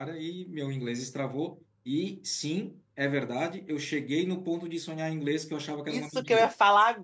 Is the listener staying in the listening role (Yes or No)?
No